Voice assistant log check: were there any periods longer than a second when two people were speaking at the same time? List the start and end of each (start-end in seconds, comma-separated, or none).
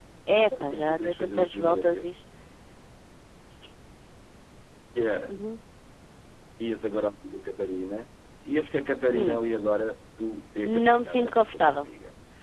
0.6-2.1, 10.6-11.9